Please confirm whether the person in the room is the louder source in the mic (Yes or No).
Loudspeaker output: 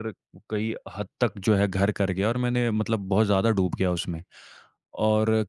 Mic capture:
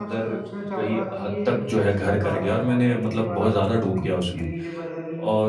No